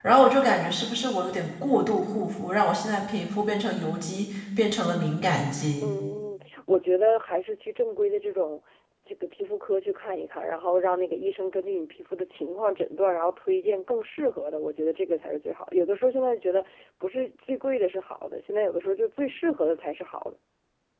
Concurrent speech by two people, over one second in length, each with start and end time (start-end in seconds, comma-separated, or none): none